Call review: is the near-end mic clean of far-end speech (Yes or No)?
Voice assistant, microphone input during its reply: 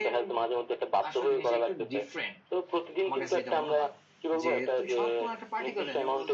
No